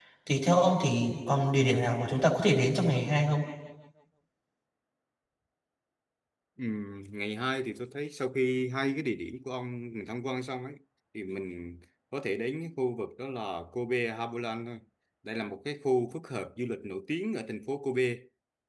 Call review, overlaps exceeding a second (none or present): none